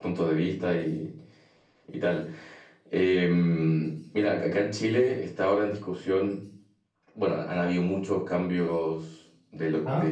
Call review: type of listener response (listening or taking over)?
listening